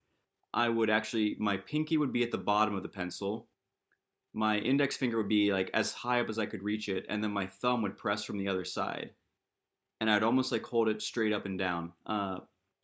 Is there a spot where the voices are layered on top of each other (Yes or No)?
No